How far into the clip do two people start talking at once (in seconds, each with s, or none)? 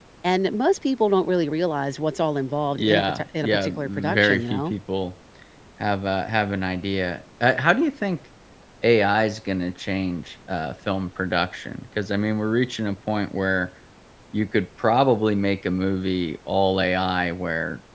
2.8 s